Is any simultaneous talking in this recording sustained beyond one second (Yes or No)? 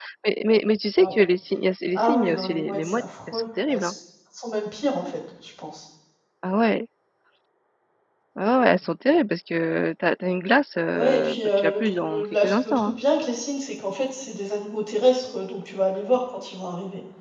Yes